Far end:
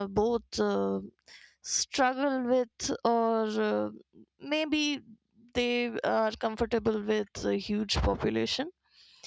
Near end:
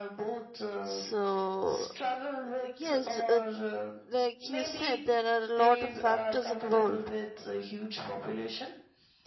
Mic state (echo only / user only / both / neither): both